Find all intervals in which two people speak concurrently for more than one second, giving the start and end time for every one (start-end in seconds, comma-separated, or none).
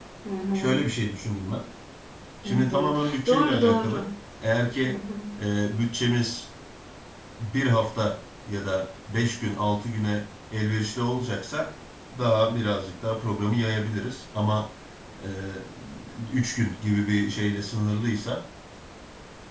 2.5-4.0